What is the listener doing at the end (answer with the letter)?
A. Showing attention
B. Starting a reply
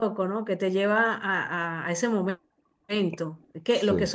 A